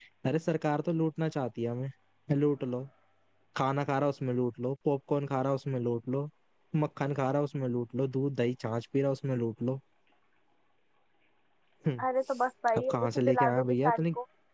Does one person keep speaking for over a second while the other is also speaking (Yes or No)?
Yes